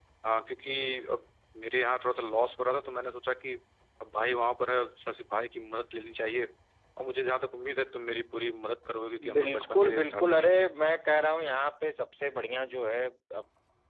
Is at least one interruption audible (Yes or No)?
Yes